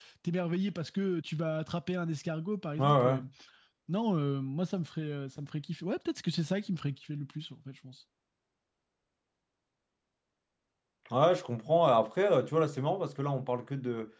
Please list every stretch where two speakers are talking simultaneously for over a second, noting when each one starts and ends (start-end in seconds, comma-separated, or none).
none